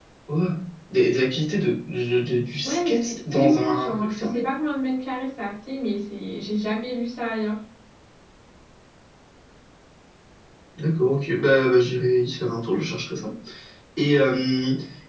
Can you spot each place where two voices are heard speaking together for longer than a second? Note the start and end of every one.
2.6-4.4

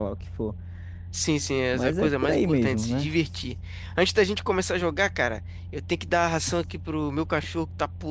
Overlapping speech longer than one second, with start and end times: 1.7-3.1

